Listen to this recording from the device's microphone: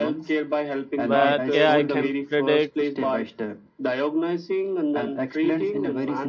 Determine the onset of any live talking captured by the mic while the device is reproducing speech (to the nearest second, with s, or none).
1 s